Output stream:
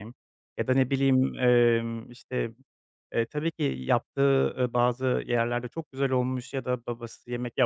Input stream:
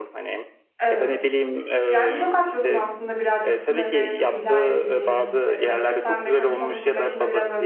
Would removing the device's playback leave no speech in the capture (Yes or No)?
No